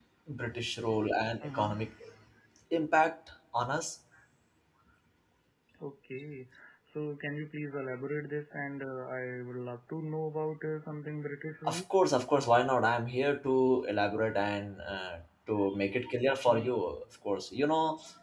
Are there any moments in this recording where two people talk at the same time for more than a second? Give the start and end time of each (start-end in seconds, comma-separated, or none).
none